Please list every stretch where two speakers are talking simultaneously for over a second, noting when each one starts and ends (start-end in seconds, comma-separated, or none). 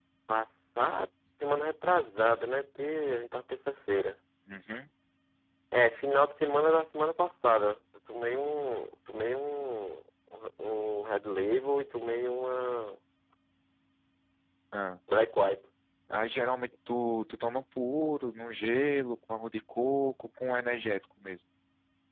none